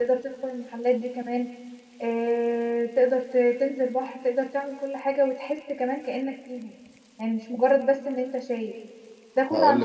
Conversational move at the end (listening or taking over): listening